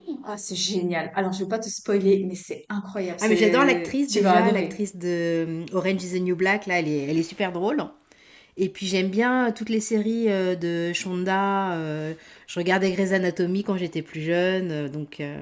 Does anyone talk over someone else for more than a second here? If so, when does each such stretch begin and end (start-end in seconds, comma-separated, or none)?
3.2-4.8